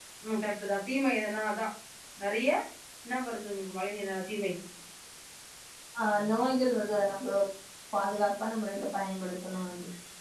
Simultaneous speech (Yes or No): No